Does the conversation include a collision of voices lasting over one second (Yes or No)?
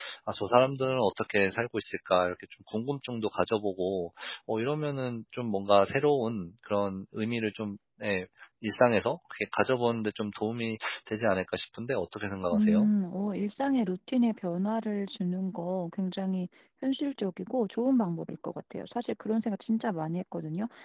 No